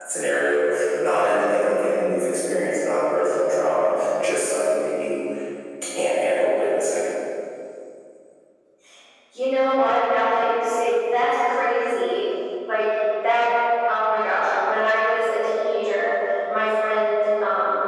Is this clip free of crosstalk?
Yes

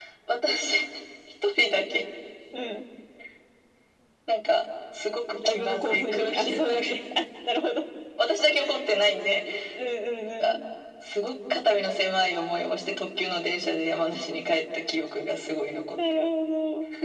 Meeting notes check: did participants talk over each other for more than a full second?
Yes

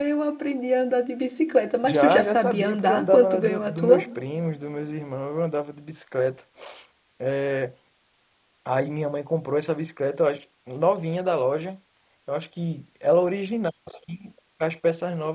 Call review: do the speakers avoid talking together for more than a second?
No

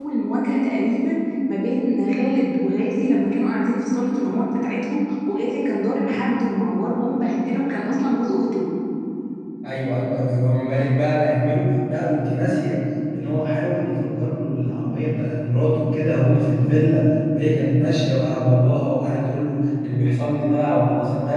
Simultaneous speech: No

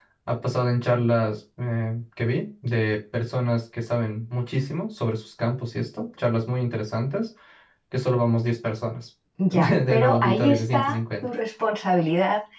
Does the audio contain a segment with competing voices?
Yes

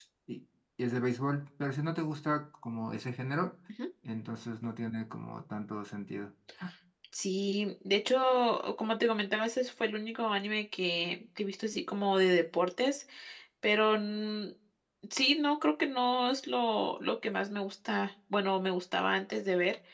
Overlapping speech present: No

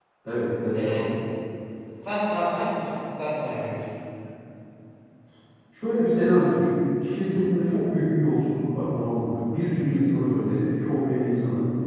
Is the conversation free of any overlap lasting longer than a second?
Yes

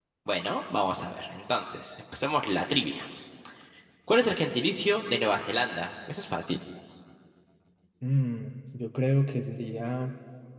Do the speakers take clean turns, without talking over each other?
Yes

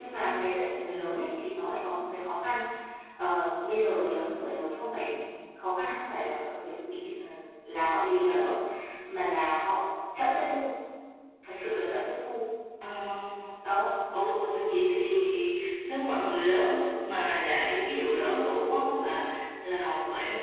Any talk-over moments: No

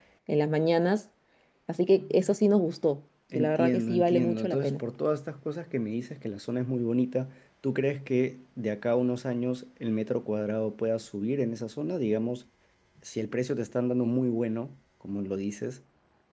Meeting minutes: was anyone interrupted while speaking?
Yes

